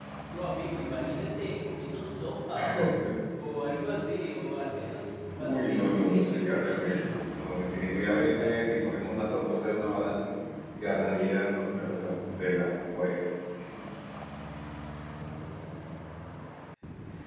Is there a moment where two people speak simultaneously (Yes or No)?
Yes